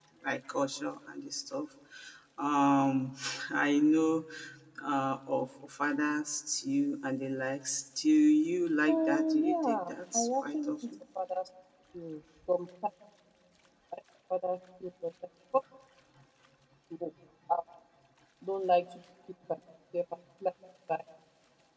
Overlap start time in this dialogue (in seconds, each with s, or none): 8.9 s